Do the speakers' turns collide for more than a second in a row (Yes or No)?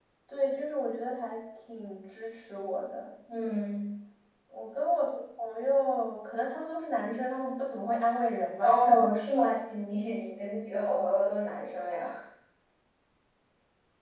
No